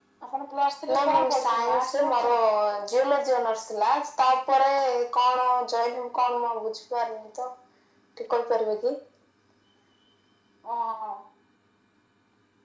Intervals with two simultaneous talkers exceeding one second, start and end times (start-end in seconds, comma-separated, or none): 0.9-2.3